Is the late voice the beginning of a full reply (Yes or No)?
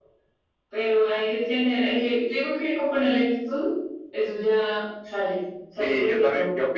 Yes